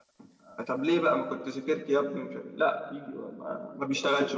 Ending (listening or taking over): taking over